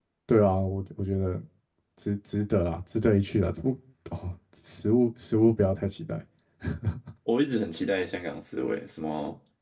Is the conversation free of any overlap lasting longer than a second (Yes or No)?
Yes